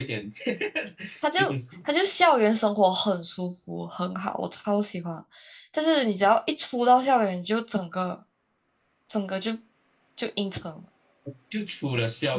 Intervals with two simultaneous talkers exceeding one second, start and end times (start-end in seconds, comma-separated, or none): none